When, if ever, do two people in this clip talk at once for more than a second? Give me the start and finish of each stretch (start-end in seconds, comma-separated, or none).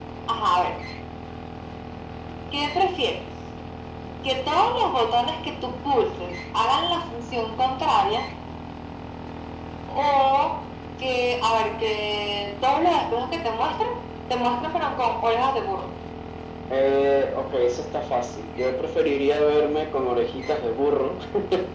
none